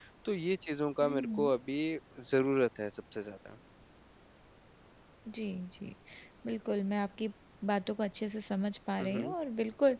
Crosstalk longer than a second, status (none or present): none